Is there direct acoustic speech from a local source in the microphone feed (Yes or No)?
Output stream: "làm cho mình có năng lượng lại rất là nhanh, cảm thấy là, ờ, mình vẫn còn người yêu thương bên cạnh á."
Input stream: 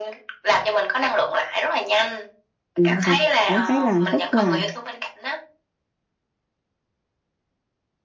Yes